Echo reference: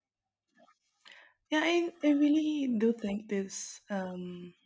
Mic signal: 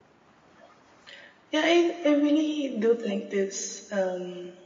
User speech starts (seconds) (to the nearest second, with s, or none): none